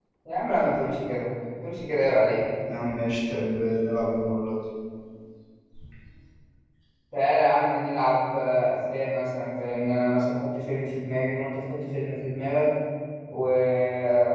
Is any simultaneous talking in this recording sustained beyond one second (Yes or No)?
No